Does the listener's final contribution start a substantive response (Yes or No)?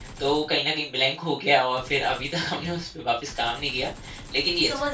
Yes